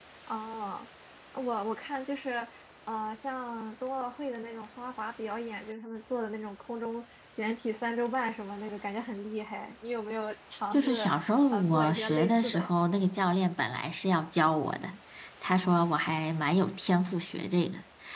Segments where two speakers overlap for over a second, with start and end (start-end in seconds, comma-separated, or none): 11.5-12.7